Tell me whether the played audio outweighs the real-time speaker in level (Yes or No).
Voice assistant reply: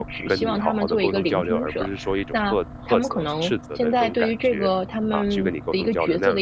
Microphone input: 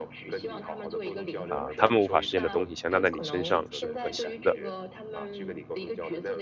No